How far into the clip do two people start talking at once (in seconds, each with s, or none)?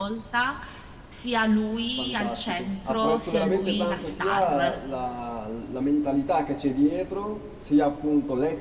2.0 s